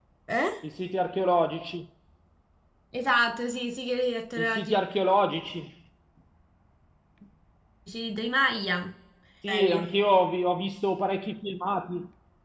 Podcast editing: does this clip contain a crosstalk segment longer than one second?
No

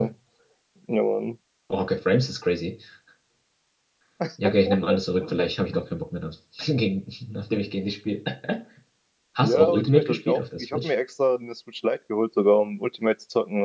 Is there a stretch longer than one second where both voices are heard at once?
Yes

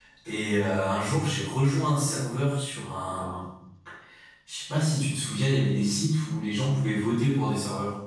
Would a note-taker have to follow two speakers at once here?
No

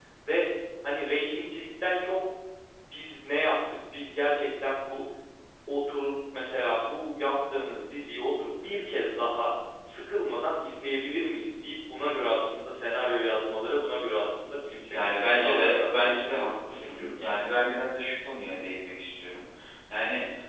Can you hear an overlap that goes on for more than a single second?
Yes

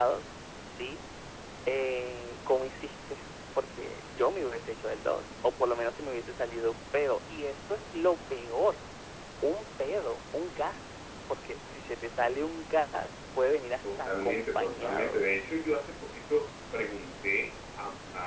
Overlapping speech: Yes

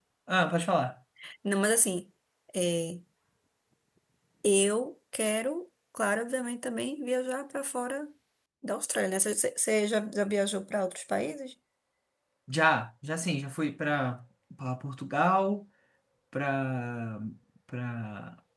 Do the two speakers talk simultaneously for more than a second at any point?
No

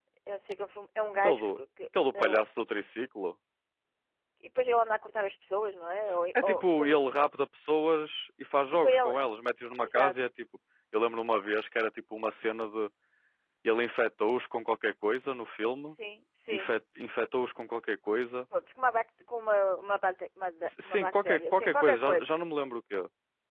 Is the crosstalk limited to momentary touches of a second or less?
No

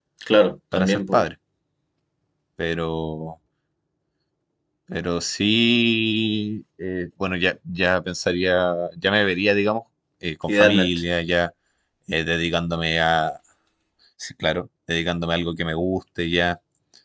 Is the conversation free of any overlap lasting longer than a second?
Yes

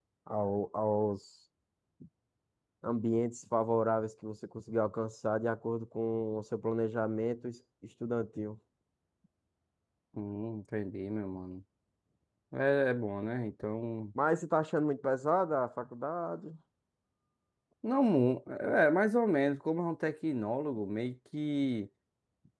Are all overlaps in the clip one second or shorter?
Yes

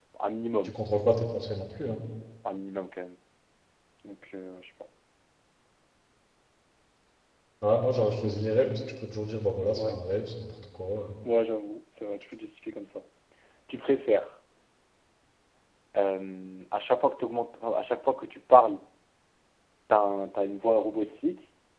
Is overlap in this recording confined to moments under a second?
Yes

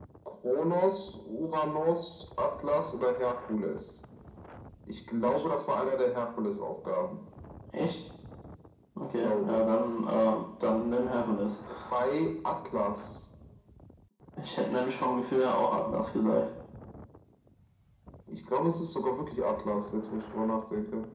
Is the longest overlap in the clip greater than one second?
No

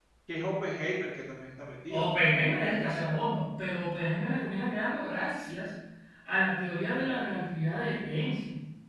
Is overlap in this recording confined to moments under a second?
Yes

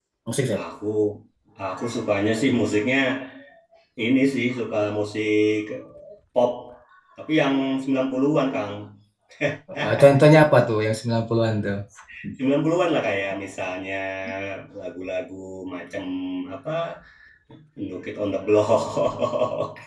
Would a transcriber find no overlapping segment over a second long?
Yes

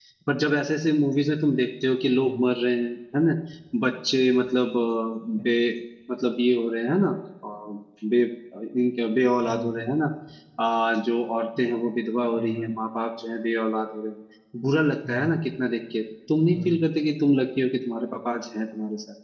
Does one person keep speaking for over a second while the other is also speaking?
No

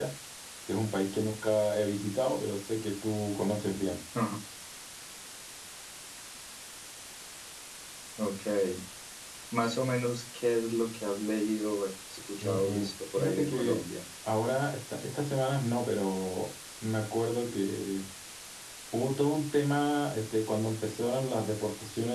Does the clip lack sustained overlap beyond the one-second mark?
No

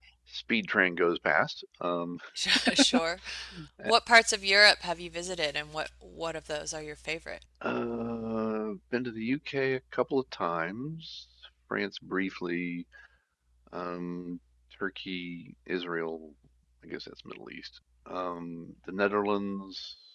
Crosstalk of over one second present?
No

